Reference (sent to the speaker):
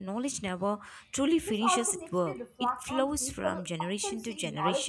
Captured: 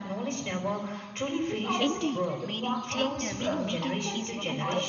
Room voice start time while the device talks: 1.8 s

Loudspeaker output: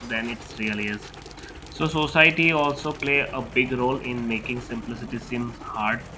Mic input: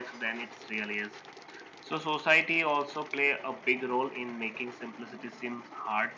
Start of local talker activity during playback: none

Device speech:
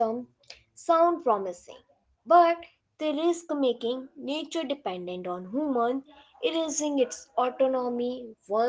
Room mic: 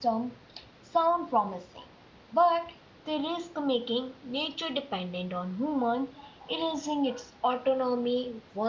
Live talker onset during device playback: none

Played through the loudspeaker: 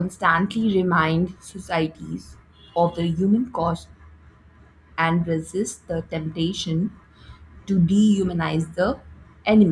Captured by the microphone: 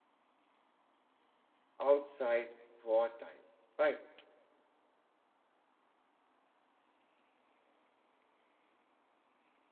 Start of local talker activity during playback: 1.8 s

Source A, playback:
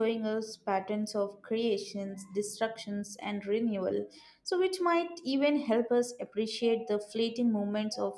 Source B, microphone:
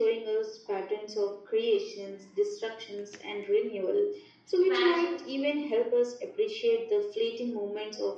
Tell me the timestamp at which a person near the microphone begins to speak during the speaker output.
4.6 s

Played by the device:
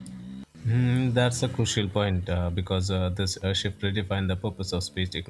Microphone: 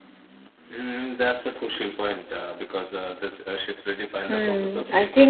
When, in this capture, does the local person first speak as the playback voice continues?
4.3 s

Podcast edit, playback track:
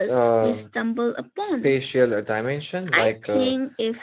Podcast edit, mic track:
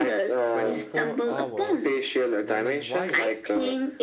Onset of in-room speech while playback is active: 0.5 s

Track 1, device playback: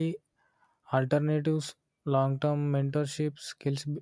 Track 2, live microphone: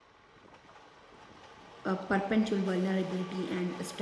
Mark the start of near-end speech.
1.8 s

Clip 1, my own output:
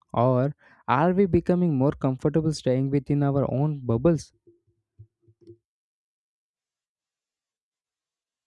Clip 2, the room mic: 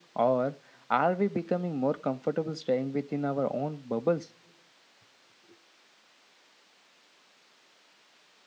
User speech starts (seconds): none

